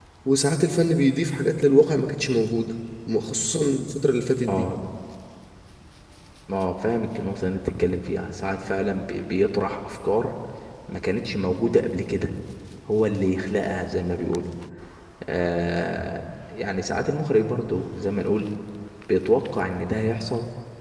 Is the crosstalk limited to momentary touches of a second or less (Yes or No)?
Yes